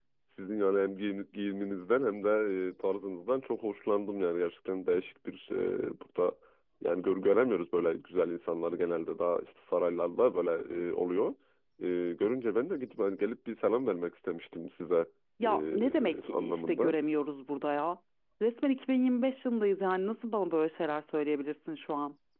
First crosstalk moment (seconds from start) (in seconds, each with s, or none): 15.4 s